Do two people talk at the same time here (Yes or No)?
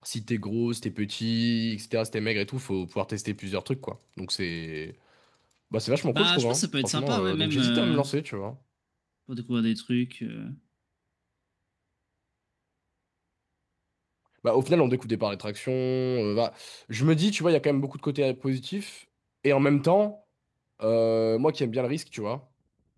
Yes